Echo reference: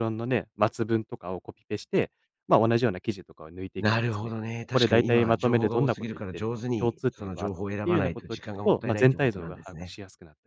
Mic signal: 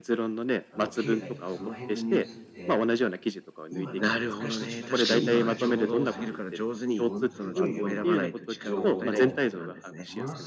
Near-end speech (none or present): present